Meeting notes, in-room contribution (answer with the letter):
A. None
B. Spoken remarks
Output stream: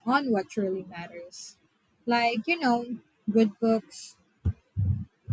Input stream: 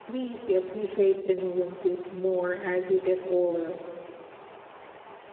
B